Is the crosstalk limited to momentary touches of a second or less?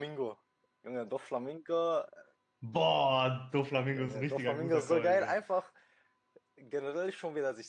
No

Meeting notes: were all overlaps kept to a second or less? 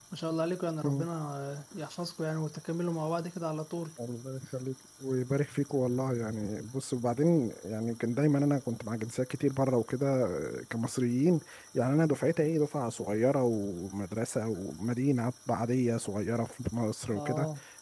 Yes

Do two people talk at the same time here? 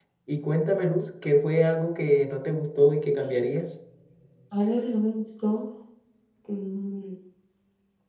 No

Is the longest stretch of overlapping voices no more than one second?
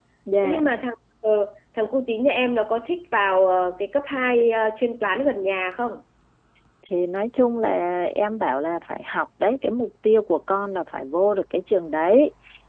Yes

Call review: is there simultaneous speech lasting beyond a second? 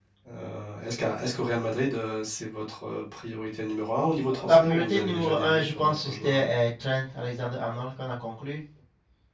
Yes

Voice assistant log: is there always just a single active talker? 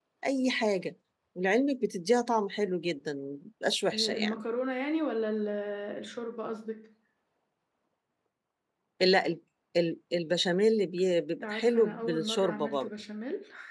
No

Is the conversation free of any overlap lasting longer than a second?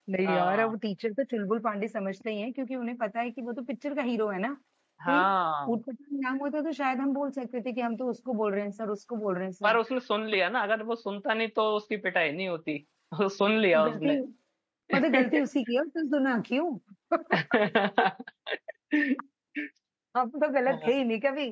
Yes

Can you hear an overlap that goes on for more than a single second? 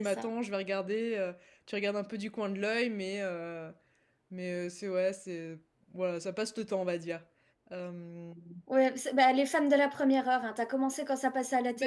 No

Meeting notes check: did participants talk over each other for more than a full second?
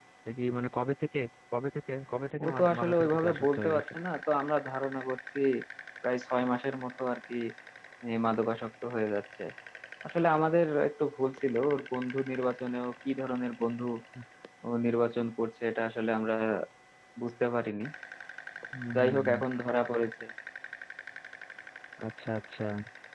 Yes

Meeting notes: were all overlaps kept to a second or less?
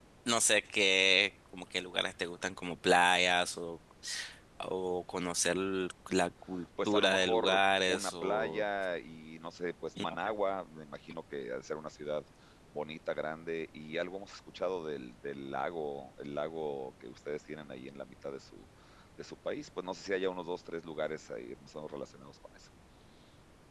No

